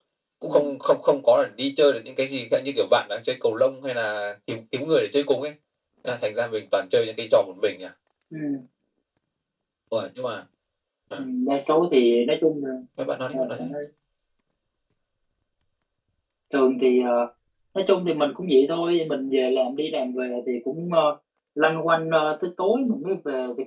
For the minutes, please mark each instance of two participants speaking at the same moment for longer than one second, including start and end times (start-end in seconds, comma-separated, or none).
none